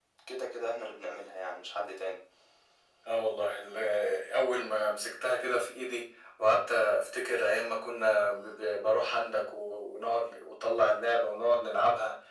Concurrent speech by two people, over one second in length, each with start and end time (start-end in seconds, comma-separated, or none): none